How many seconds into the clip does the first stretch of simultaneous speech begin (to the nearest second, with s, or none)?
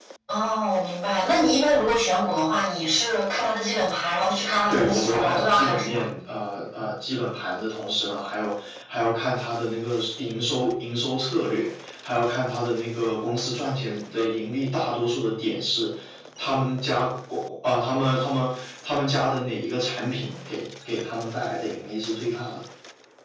5 s